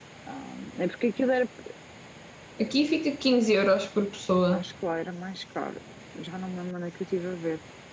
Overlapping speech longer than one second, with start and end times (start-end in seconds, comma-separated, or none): none